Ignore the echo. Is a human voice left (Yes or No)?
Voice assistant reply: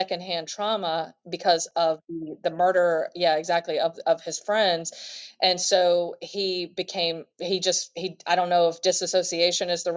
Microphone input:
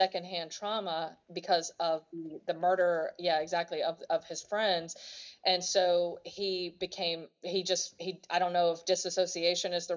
No